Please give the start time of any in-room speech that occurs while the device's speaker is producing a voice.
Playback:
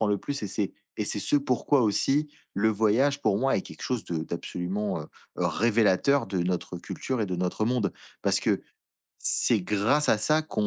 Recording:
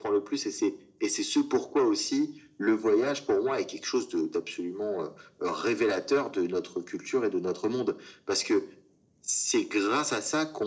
none

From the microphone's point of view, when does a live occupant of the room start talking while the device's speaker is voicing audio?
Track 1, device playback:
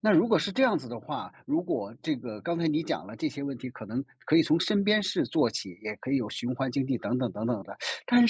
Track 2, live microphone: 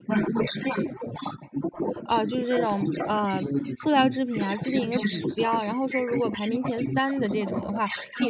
2 s

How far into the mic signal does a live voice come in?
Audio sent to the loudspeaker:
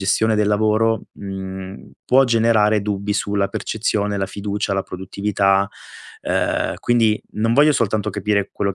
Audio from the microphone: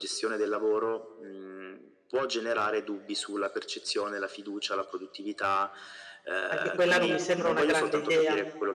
6 s

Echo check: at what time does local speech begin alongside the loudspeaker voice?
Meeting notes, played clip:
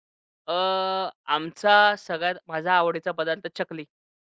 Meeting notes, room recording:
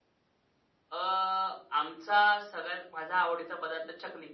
none

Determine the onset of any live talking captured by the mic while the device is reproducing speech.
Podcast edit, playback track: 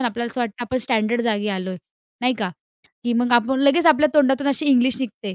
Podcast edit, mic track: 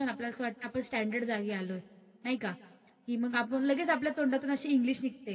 none

